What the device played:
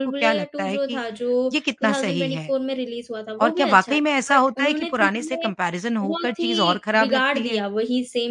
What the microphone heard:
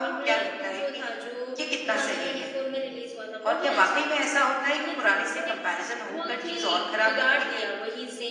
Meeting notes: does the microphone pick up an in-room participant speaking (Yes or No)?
No